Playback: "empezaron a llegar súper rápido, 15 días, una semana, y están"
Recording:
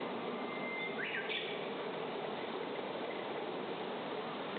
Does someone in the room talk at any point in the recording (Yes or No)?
No